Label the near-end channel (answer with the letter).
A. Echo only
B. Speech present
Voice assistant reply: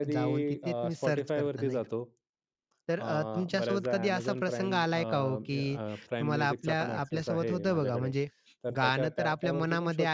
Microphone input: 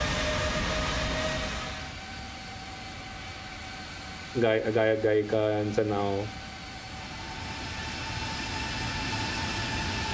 B